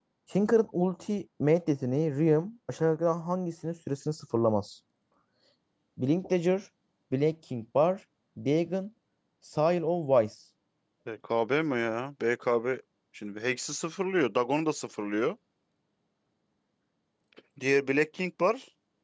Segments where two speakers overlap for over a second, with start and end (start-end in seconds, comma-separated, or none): none